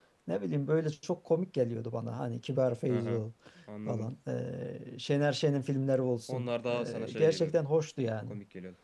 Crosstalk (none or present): present